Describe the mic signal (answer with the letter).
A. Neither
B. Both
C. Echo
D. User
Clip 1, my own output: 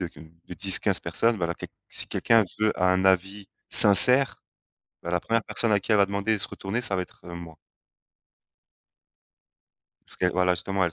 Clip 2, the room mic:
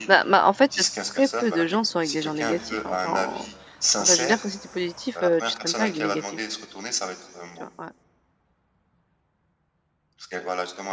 B